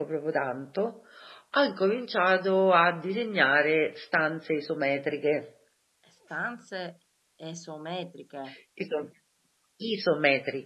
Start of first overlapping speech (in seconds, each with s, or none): none